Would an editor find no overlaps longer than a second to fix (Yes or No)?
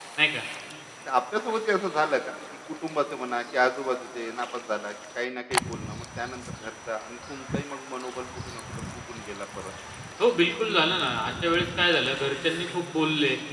Yes